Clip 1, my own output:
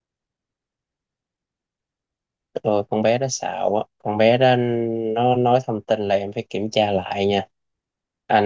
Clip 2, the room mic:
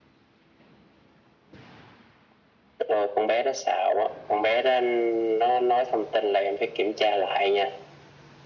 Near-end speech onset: none

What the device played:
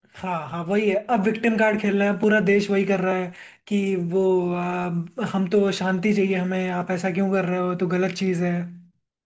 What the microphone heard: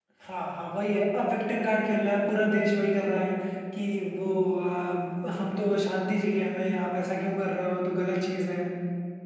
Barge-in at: none

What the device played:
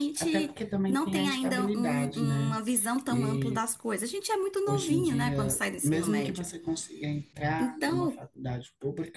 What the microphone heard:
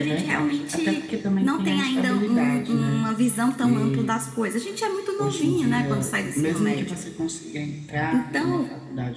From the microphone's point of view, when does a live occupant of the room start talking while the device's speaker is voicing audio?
none

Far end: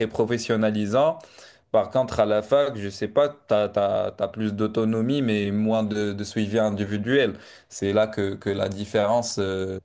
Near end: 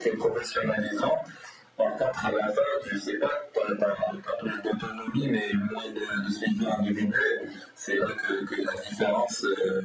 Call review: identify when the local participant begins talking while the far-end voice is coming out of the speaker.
none

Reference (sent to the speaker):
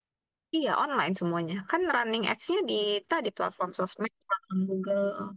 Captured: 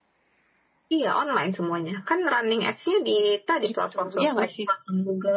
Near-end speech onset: 3.7 s

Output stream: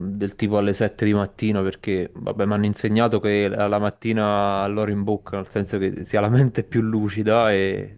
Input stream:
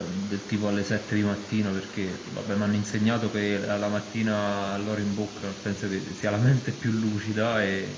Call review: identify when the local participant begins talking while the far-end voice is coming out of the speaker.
none

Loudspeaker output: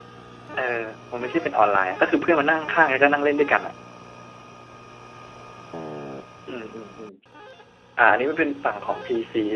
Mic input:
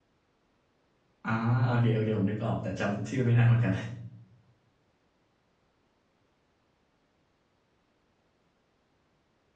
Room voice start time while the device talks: 1.2 s

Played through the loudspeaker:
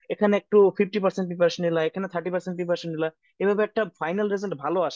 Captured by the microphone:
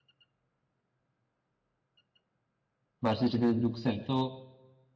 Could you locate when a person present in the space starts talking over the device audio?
3.0 s

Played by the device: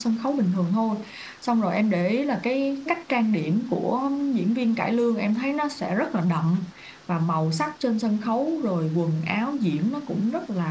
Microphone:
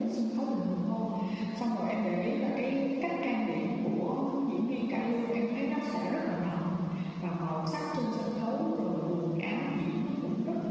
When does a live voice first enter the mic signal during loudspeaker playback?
none

